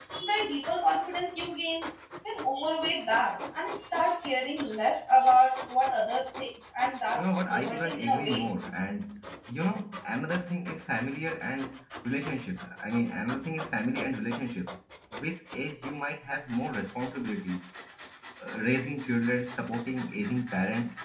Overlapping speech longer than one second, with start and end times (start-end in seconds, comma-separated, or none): 7.2-8.5